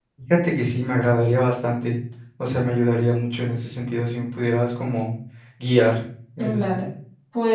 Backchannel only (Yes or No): No